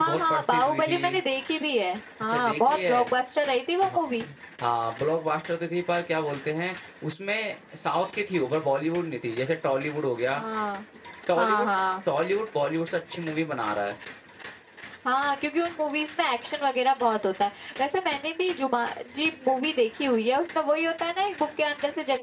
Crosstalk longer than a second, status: present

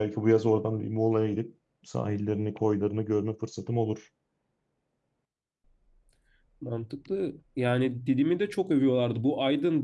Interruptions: none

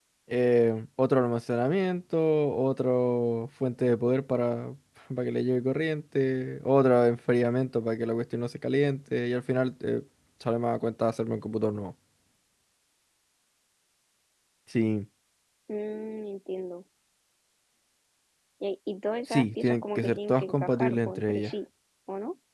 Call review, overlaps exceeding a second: present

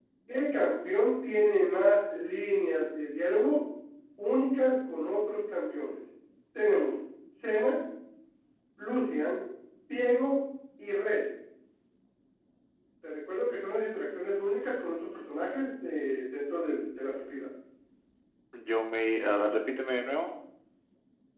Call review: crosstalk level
none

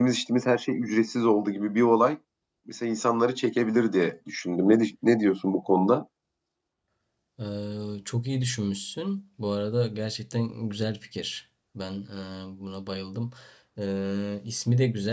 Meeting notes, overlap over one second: none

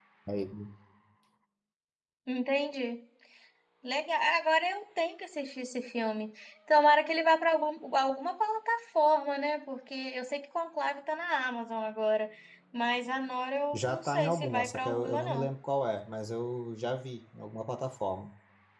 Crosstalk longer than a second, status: present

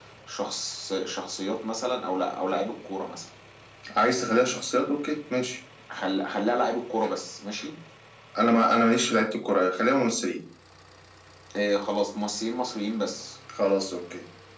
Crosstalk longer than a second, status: none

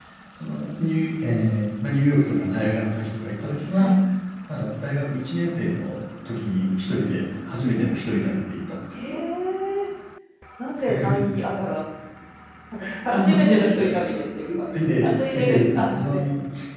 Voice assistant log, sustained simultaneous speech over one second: present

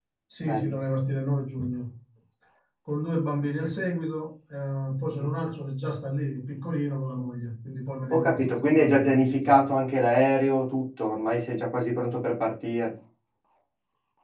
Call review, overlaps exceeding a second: present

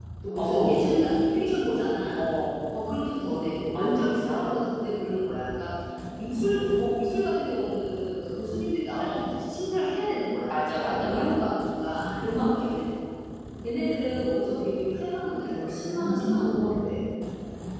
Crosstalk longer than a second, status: present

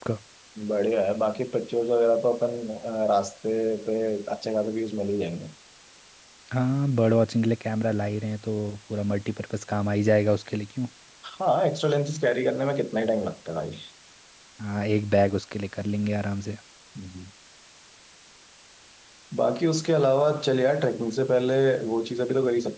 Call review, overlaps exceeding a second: none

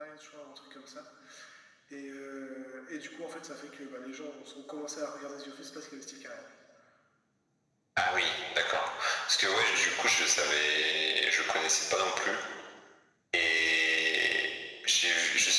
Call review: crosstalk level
none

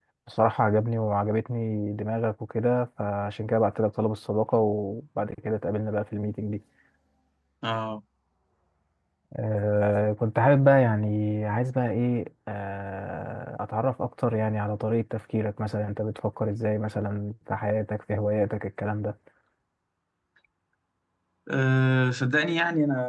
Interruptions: none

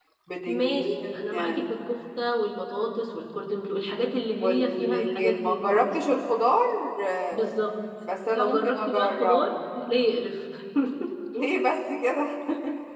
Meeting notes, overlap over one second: present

